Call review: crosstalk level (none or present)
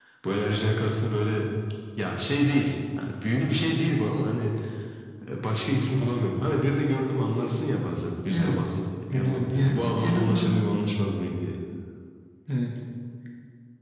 present